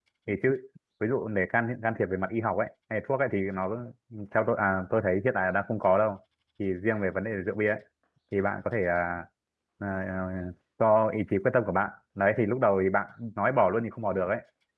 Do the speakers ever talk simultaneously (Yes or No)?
No